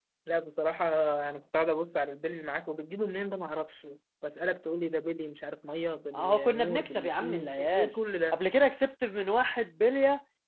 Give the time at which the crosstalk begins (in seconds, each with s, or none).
6.1 s